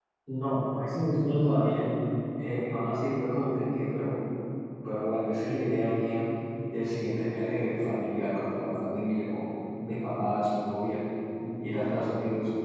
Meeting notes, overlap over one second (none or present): none